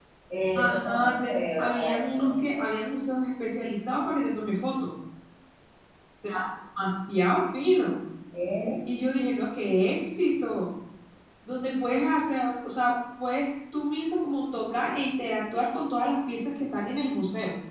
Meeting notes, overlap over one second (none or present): present